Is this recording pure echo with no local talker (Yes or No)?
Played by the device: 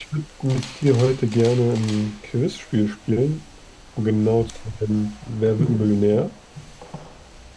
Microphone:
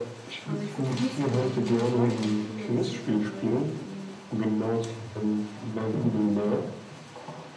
No